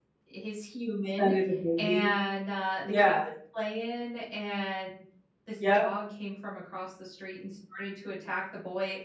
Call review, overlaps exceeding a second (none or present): none